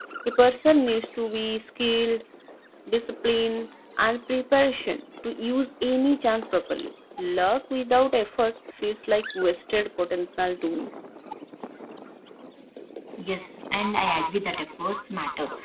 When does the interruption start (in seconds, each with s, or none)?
none